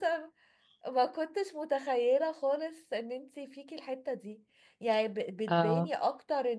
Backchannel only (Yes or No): Yes